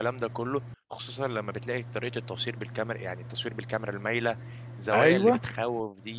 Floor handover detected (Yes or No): No